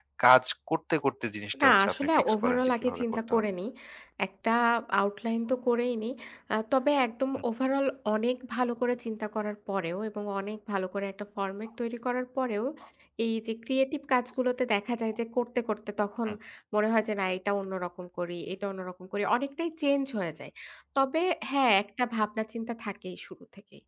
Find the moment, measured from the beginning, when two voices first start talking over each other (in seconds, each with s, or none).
1.5 s